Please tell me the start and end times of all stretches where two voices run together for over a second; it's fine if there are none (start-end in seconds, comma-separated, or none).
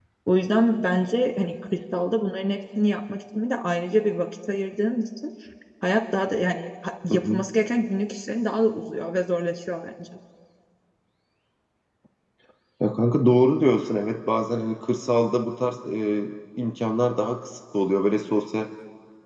none